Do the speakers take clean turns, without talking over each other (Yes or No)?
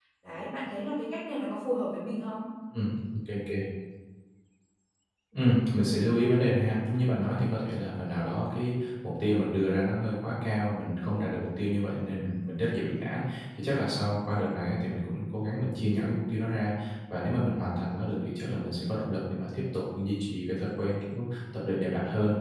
Yes